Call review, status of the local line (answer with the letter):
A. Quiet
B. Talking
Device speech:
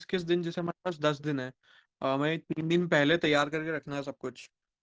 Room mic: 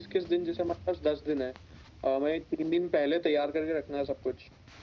A